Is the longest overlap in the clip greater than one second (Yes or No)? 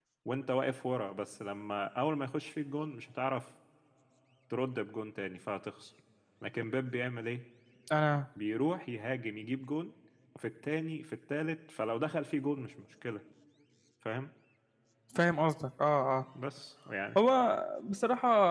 No